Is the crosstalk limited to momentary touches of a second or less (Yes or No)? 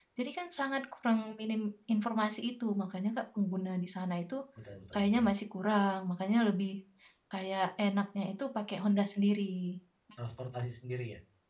Yes